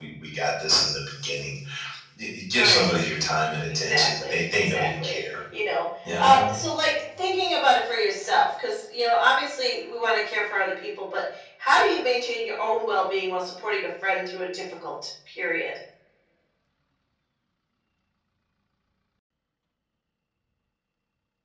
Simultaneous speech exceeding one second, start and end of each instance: 3.9-5.2

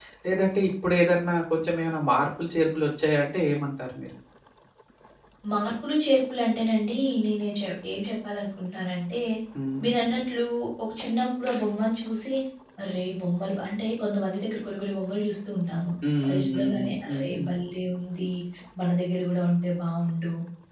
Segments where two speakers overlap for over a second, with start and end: 16.3-17.5

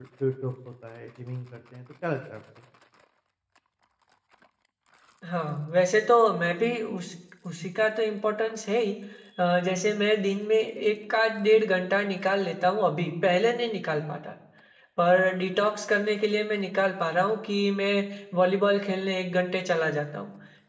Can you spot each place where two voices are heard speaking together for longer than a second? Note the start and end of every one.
none

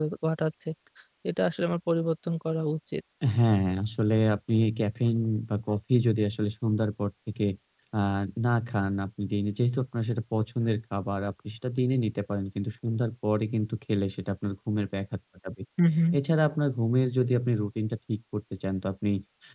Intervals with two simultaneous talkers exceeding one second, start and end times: none

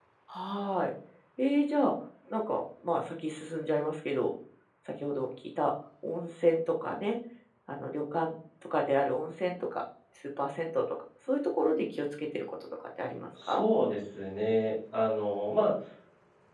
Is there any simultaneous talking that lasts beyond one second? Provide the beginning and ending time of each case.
none

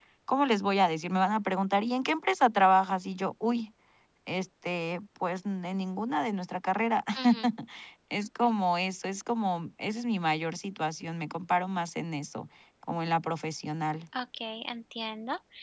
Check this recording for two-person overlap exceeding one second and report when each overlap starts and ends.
none

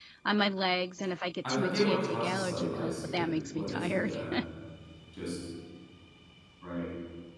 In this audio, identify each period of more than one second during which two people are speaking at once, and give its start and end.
1.5-4.2

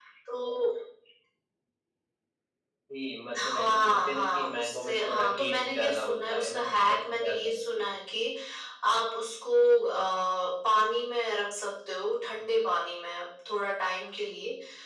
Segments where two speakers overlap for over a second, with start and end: 3.4-7.9

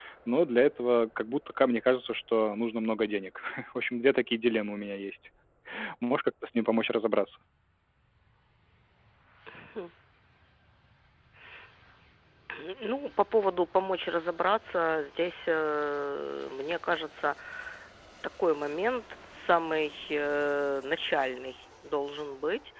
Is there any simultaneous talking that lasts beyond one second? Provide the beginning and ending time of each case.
none

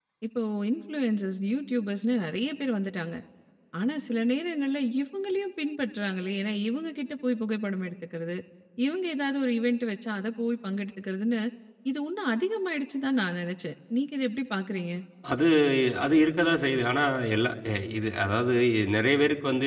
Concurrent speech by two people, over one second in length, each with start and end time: none

